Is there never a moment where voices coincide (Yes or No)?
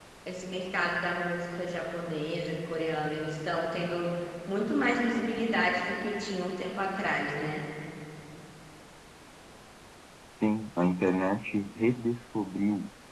Yes